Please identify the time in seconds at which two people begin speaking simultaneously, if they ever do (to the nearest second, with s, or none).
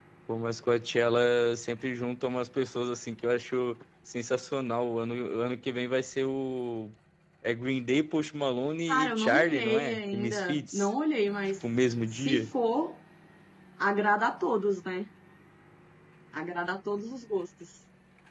9 s